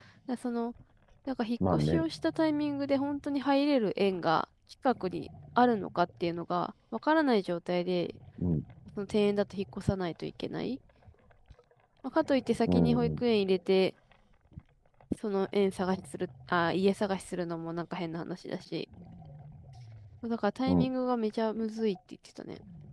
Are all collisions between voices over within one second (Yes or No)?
Yes